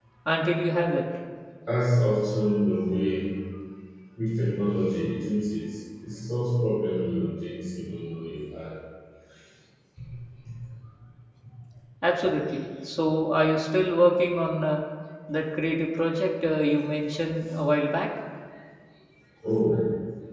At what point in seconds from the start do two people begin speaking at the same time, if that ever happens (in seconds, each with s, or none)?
none